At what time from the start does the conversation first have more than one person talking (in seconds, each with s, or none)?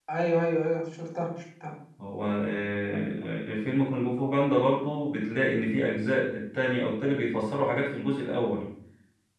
none